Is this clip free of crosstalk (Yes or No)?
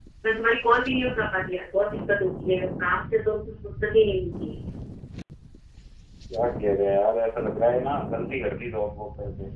Yes